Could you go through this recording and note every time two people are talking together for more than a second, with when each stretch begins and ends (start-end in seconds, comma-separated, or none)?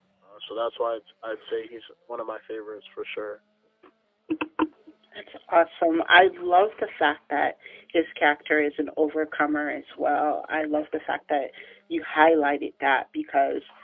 none